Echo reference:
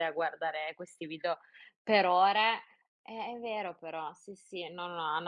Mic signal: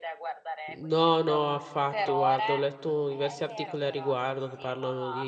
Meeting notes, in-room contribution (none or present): present